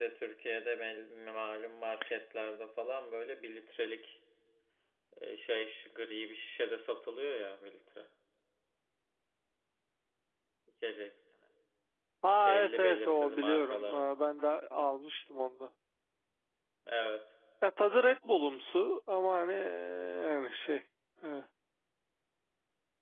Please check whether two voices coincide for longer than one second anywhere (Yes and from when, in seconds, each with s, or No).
Yes, from 12.5 s